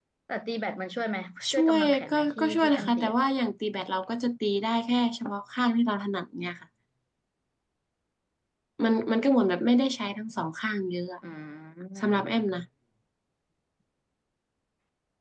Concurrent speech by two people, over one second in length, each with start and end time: 1.5-3.2

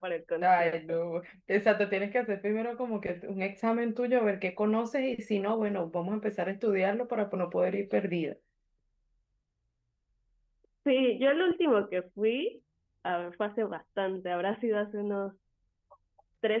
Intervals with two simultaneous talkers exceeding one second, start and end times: none

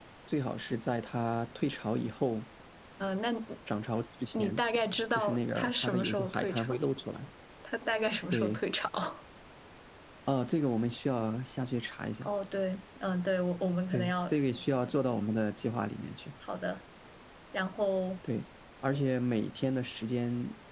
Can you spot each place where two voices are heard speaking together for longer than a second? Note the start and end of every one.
5.1-6.8

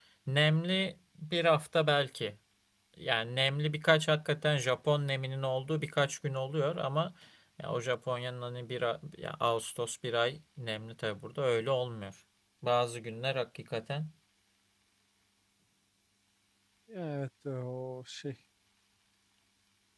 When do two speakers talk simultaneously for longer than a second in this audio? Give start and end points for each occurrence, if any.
none

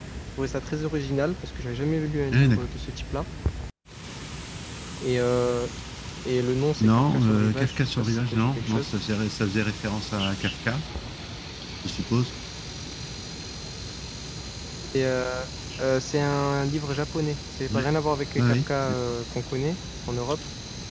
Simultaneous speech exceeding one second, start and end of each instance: 6.8-8.9

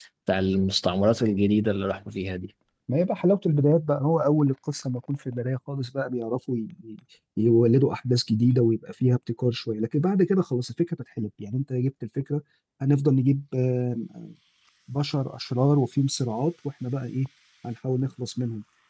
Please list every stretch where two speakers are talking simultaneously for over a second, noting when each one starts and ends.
none

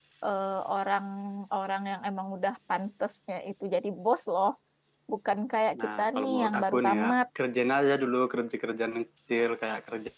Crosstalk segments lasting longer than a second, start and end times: 5.8-7.2

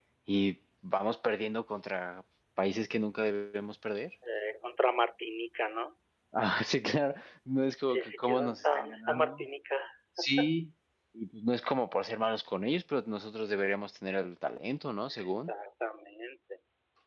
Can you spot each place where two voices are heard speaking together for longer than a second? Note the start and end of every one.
7.8-9.4

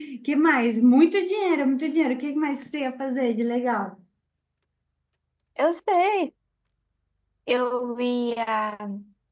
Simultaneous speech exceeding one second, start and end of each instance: none

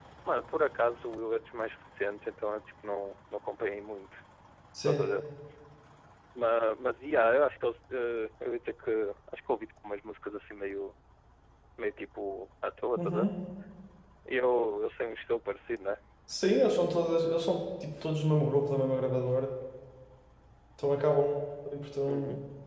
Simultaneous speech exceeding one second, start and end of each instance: none

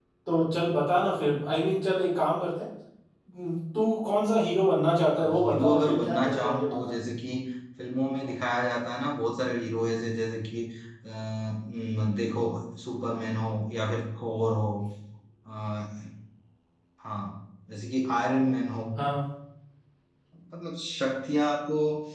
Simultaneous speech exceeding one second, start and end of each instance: 5.2-6.9

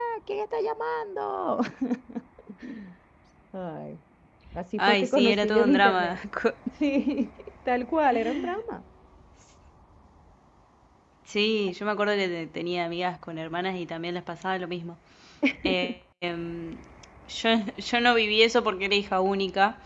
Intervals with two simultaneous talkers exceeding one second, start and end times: 4.8-6.2

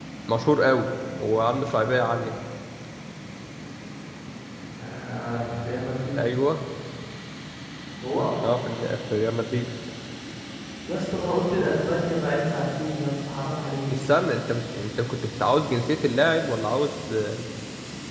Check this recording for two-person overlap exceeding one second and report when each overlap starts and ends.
none

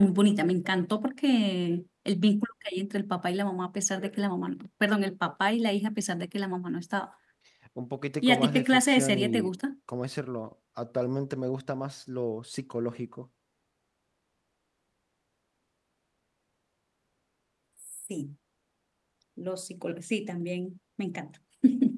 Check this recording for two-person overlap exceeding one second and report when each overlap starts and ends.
8.2-9.6

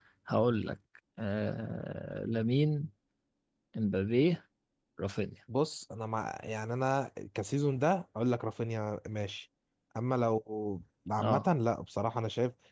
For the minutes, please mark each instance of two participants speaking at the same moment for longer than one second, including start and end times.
none

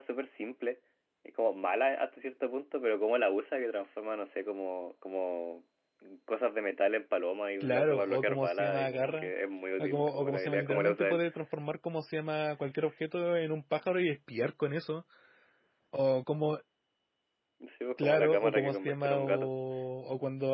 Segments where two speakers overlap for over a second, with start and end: 7.6-9.3, 9.8-11.2, 18.0-19.5

